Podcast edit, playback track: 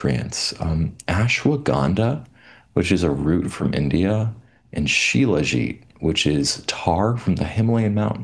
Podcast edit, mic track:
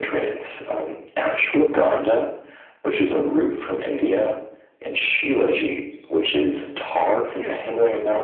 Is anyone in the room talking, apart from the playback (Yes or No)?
Yes